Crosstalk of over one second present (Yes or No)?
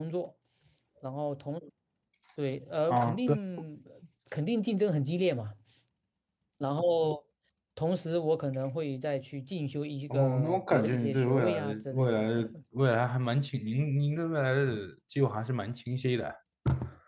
Yes